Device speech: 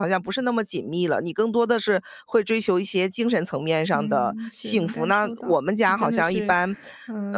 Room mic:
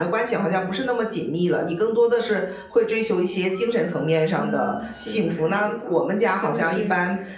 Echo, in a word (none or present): present